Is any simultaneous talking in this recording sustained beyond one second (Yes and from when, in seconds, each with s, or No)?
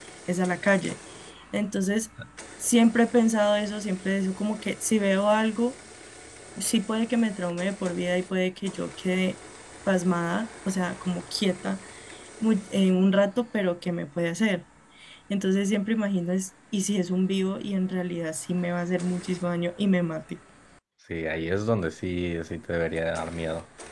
No